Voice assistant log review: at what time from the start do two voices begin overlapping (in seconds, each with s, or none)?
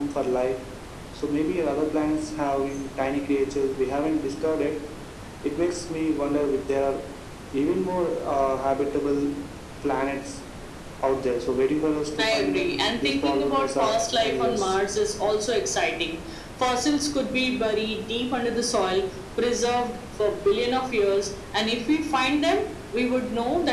12.2 s